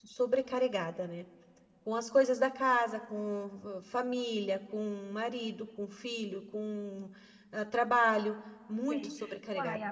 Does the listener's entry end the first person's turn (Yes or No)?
Yes